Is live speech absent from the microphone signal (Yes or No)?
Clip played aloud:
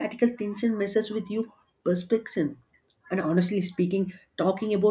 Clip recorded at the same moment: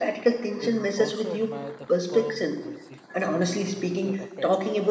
No